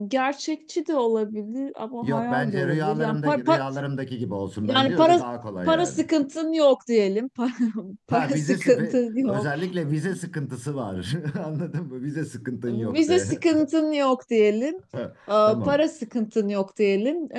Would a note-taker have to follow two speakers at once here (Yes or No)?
Yes